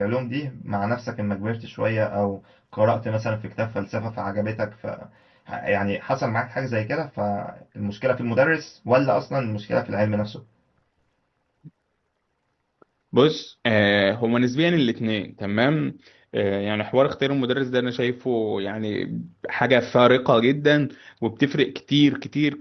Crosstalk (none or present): none